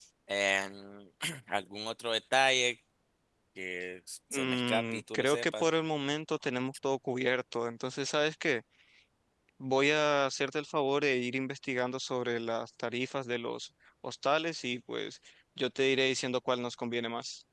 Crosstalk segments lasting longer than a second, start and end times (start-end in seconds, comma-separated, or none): 4.3-5.6